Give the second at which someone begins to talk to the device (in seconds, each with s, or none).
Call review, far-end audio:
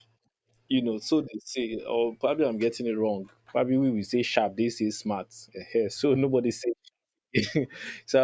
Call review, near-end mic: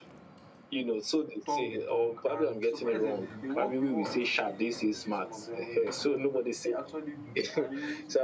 1.4 s